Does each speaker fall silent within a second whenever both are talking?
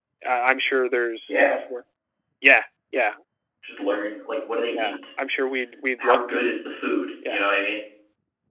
Yes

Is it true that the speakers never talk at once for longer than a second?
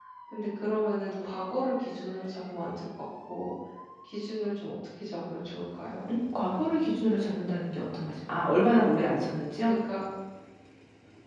Yes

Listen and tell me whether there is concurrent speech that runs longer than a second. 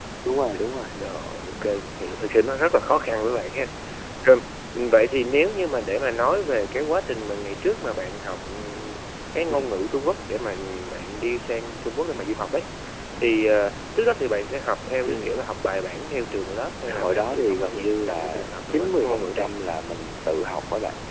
Yes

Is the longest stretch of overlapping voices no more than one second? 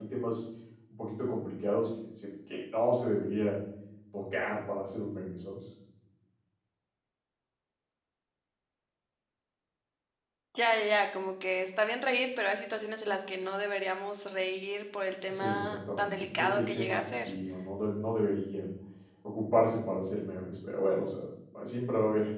No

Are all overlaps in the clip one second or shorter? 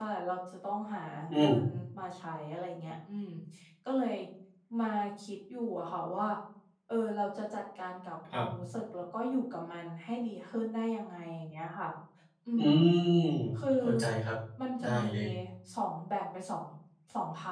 Yes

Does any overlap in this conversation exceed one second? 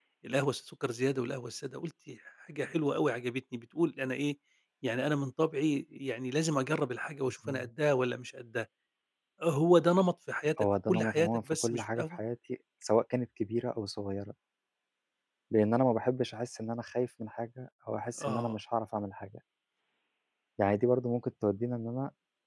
Yes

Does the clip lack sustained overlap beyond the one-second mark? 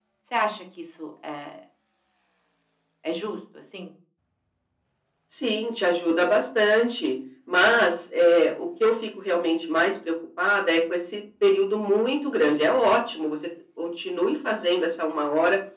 Yes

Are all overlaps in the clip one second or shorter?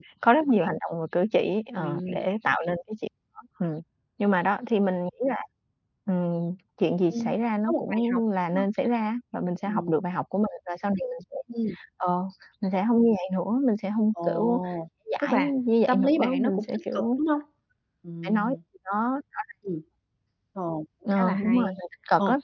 No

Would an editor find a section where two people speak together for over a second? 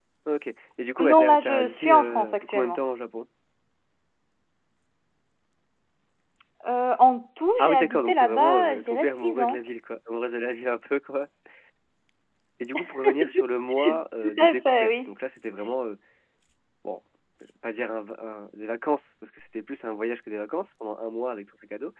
Yes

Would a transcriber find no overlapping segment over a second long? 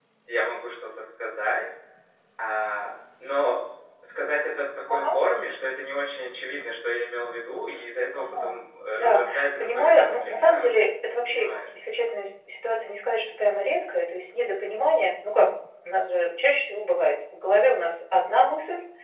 No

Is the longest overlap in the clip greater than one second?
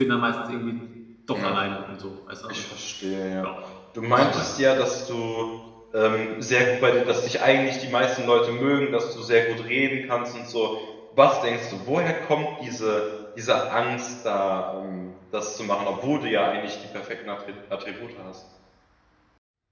No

